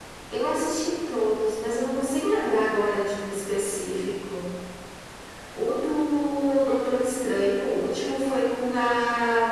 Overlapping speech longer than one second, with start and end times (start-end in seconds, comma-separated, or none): none